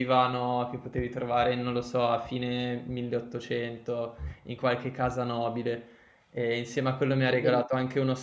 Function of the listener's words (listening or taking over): listening